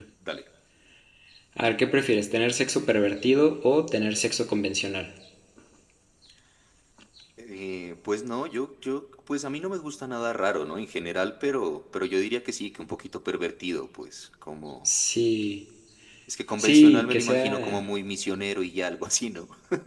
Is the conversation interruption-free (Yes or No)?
No